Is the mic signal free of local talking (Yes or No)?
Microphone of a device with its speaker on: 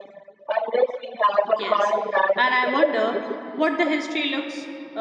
No